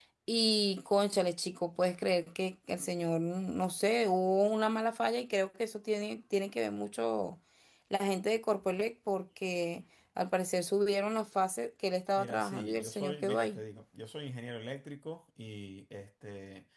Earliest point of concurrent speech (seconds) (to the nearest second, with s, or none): 12 s